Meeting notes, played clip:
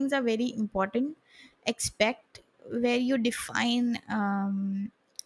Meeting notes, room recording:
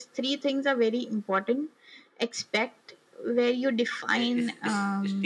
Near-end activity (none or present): present